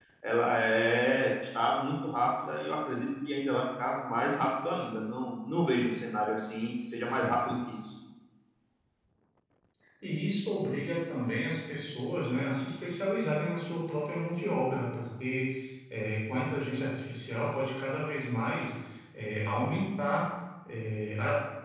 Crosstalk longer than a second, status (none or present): none